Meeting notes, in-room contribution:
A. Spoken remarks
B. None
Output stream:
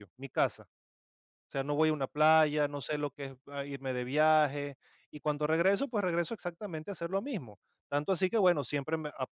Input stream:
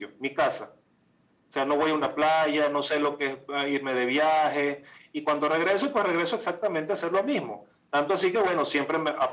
B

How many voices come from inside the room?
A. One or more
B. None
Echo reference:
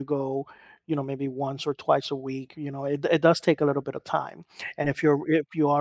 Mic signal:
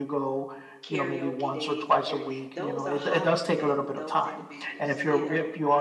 A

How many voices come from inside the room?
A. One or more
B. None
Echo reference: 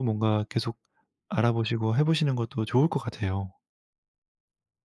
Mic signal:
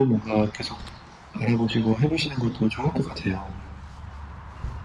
B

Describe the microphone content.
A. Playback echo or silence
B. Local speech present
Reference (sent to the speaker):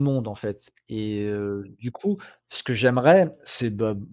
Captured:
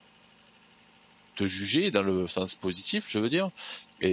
B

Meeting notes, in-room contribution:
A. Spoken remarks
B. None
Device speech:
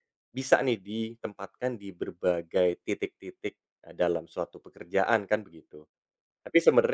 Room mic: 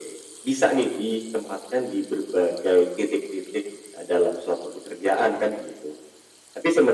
B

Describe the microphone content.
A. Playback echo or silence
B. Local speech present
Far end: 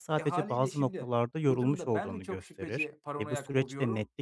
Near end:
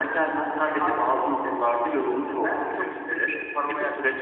A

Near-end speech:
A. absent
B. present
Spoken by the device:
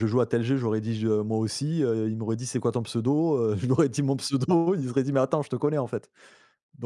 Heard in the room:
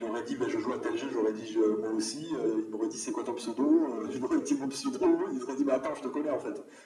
A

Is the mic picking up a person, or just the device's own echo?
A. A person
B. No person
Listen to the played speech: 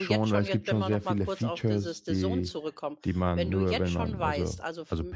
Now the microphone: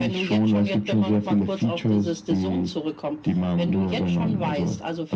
B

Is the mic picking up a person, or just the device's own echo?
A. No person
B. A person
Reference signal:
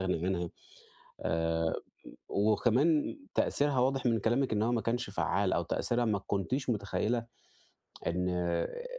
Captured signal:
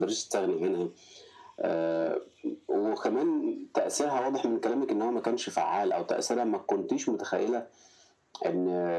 A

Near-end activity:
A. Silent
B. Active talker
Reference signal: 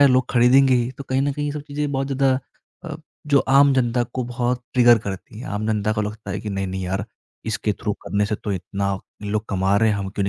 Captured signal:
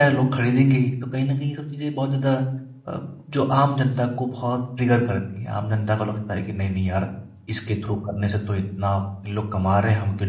A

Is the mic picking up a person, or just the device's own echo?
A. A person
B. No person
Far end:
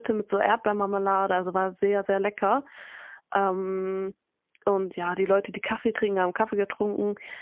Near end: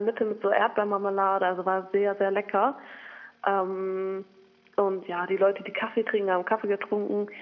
B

